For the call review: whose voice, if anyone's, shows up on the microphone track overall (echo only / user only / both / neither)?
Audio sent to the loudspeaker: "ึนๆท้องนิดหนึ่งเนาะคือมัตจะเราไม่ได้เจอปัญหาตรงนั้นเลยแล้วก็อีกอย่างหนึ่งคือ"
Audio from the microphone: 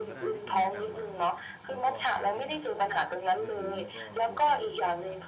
both